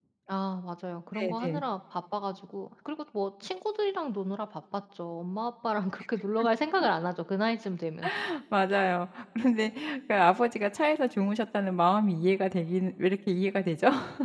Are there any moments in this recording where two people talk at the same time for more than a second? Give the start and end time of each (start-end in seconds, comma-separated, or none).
none